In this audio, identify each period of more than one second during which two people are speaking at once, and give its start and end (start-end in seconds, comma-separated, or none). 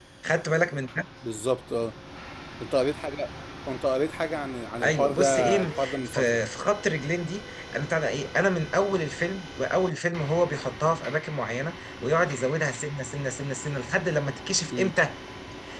4.8-6.4